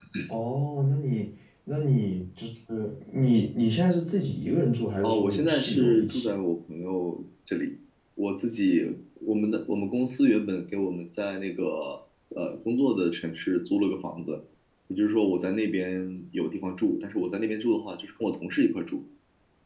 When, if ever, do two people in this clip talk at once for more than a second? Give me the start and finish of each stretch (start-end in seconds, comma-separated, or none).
5.0-6.3